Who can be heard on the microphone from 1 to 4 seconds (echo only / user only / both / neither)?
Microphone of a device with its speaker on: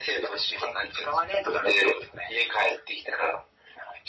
echo only